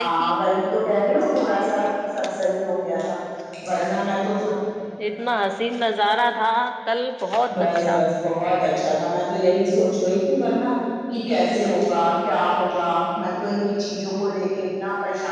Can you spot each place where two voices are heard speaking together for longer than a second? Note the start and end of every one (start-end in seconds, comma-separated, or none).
none